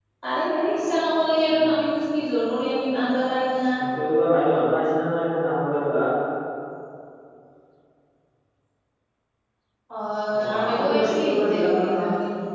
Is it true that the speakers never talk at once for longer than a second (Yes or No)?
No